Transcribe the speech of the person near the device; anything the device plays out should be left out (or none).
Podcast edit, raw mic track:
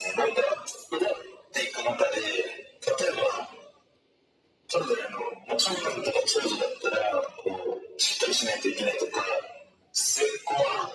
none